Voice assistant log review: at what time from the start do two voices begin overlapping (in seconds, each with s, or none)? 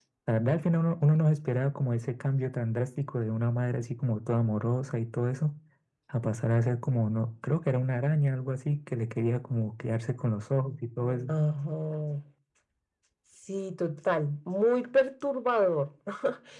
none